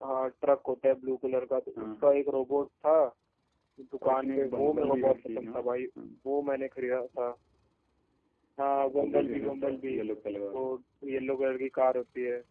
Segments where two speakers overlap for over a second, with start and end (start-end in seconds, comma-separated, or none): 4.0-5.5, 8.8-10.0